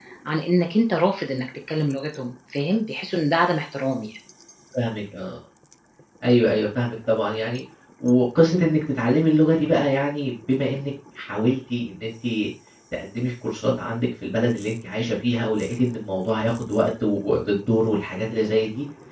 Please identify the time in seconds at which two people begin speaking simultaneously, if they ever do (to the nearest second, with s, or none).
none